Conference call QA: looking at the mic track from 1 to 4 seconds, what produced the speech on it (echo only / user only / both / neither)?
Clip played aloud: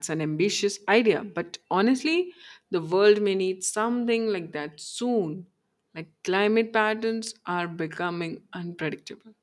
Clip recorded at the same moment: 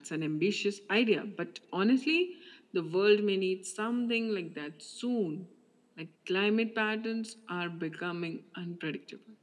echo only